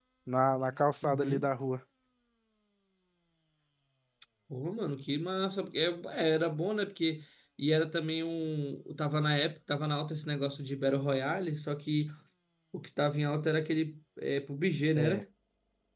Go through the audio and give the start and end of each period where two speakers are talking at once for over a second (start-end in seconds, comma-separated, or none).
none